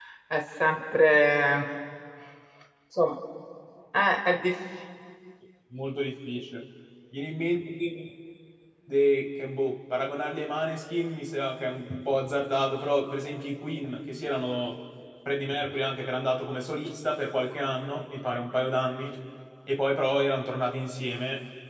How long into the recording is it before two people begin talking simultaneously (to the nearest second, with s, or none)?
none